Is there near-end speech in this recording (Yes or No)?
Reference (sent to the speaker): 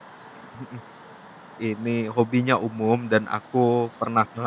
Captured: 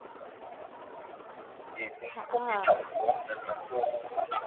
Yes